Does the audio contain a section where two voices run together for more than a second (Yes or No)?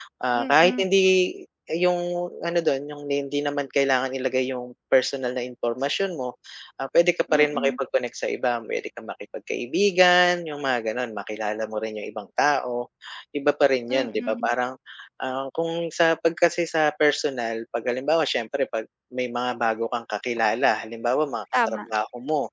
No